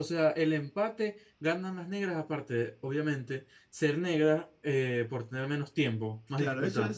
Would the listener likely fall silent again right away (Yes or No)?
No